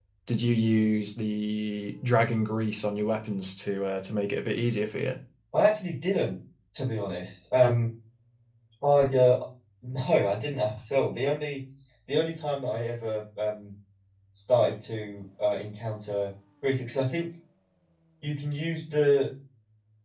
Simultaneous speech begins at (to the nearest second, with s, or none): none